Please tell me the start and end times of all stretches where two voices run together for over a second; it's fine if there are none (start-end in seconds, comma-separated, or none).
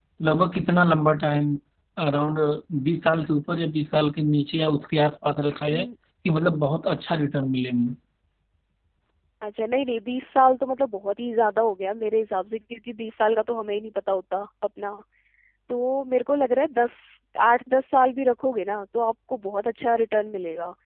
none